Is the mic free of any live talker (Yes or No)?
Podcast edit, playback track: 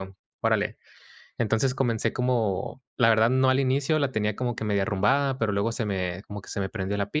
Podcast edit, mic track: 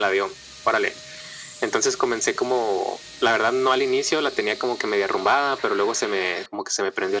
Yes